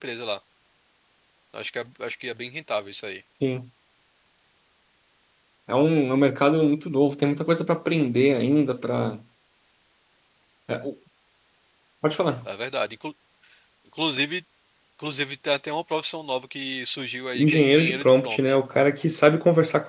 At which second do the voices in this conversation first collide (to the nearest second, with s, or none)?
17 s